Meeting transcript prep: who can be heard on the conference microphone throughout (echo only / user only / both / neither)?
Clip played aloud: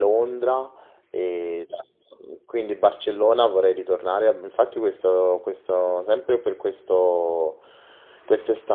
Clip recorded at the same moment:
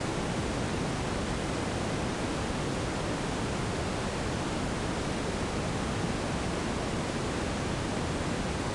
neither